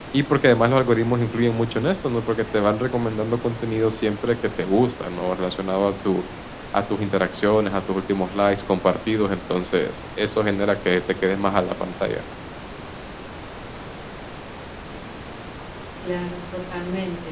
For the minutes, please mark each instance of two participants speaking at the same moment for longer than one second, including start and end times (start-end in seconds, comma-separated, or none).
none